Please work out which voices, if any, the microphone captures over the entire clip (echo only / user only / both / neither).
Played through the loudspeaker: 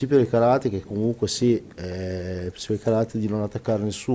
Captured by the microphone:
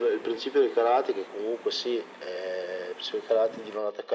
echo only